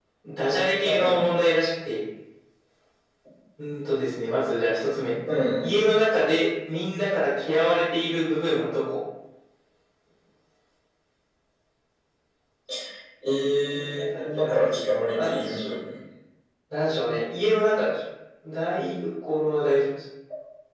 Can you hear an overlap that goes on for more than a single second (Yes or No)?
Yes